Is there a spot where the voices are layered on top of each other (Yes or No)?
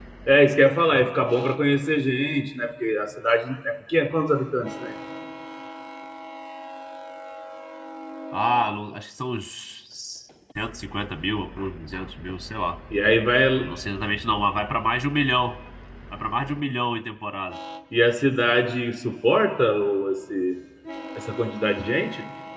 No